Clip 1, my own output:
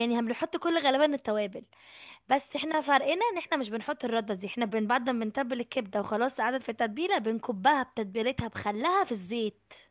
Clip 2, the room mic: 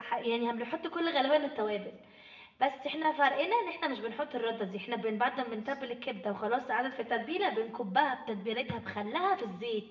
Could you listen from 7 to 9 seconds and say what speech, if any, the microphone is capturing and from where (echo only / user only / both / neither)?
echo only